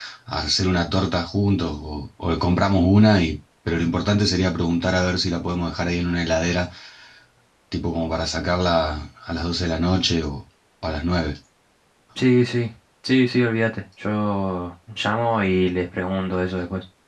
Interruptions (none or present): none